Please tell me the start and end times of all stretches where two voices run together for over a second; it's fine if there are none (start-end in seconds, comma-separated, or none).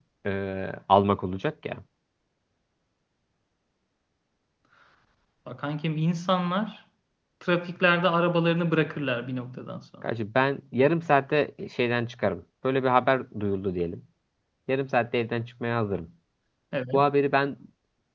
none